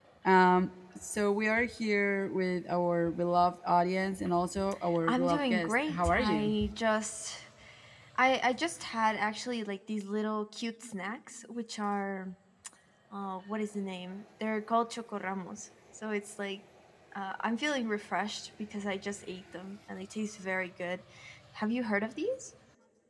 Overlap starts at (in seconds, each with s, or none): 5.0 s